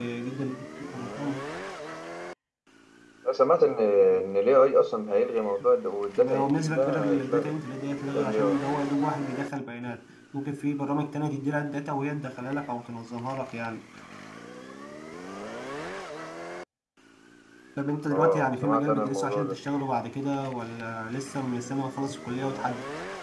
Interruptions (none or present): present